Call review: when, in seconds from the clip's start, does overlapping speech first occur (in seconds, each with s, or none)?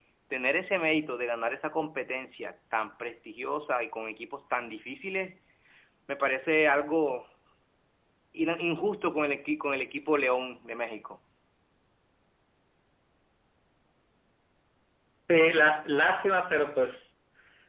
none